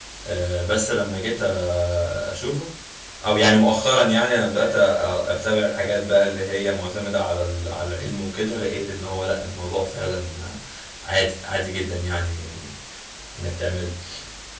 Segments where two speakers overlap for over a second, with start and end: none

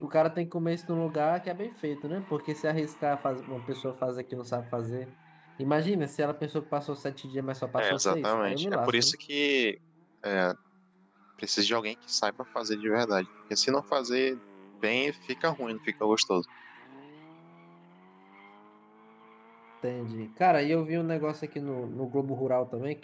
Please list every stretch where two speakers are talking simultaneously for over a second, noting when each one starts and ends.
7.8-9.1

